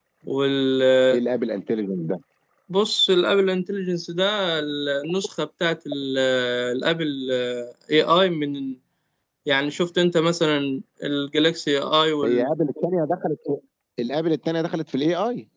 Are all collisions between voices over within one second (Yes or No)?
Yes